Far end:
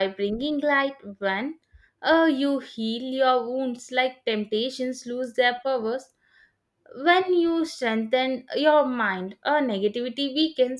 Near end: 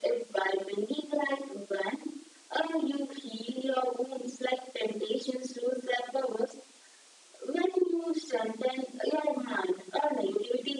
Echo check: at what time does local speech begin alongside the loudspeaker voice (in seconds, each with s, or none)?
none